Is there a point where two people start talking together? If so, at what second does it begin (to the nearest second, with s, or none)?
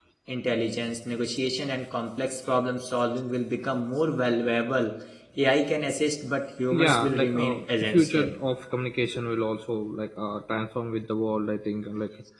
7 s